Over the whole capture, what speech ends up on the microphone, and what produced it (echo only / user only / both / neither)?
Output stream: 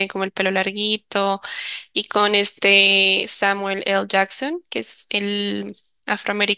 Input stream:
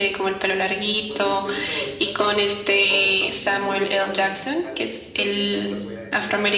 both